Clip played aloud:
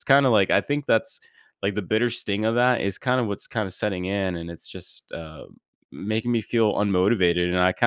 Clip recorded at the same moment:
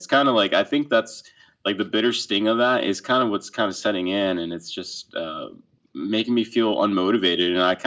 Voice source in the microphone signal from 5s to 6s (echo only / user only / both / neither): echo only